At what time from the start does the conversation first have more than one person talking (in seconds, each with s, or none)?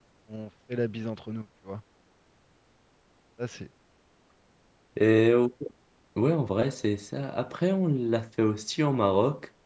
none